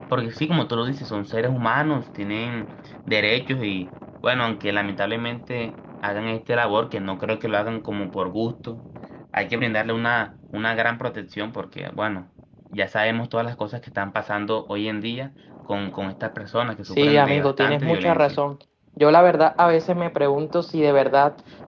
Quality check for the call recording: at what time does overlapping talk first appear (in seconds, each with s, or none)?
16.8 s